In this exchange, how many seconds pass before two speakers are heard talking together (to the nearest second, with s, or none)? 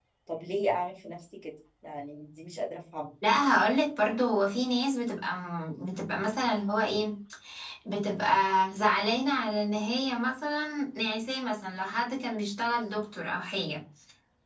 none